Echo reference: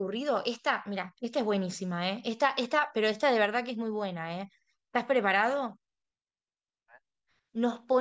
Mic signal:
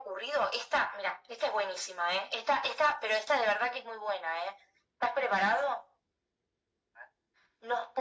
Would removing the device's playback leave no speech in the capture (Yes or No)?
Yes